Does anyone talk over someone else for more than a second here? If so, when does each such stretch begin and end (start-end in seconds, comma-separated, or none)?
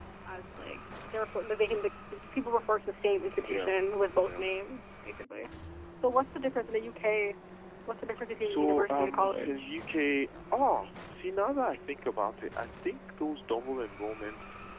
8.4-9.7